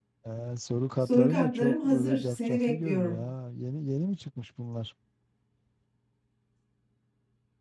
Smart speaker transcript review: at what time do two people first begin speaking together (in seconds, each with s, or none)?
1.0 s